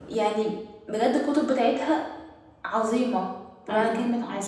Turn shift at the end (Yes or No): Yes